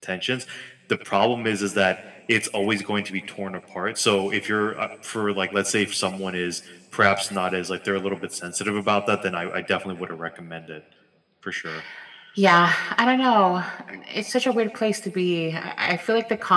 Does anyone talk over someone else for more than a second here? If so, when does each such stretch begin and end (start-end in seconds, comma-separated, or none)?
none